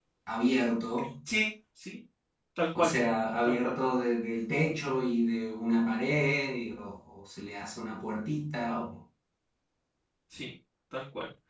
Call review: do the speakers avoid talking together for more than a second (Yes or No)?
Yes